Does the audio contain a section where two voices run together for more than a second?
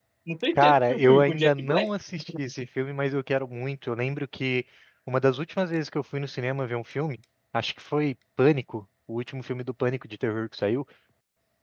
Yes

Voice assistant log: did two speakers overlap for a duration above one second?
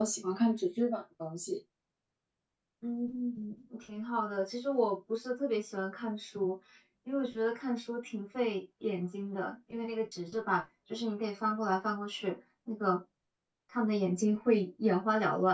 No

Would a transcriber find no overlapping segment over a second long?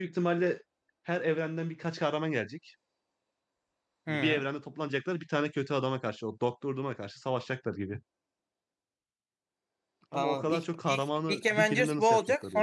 No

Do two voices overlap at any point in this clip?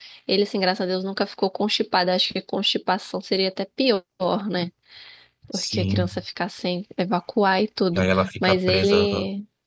Yes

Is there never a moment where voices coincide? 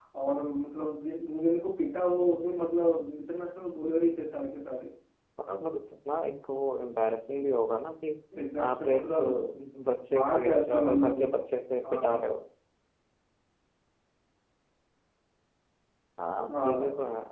No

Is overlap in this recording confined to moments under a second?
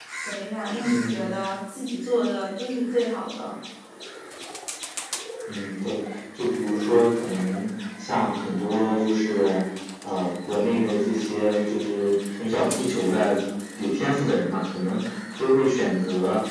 Yes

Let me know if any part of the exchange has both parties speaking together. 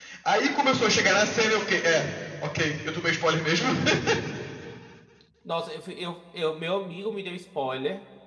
No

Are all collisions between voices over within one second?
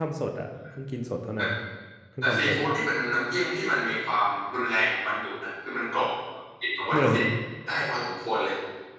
Yes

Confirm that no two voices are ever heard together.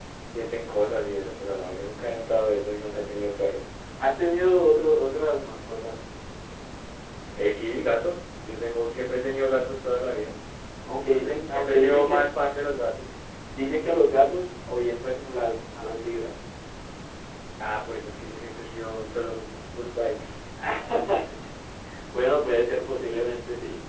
No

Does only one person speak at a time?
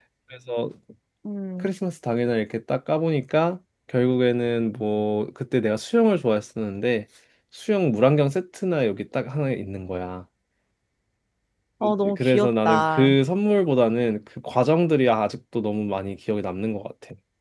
No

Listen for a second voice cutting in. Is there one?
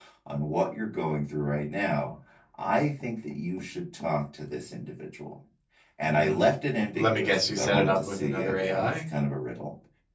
Yes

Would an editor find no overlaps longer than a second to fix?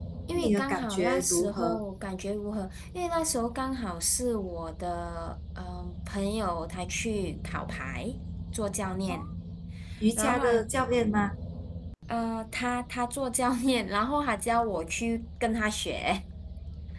No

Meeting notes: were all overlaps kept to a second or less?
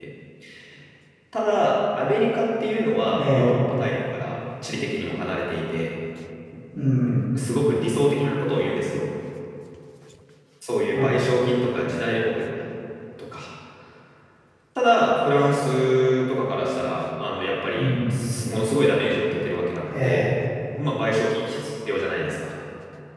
Yes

